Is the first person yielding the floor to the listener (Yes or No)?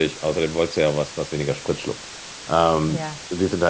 No